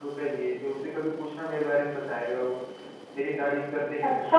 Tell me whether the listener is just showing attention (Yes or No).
No